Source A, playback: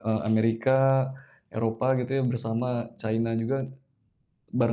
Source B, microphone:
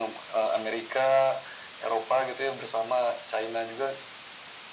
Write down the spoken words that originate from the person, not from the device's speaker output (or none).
none